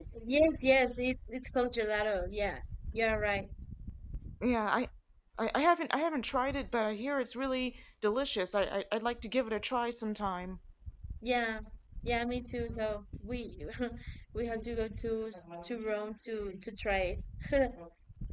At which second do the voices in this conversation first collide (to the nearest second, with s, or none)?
none